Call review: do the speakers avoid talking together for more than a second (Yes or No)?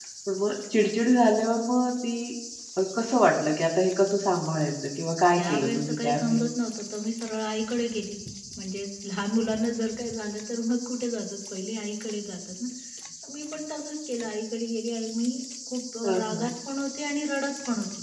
No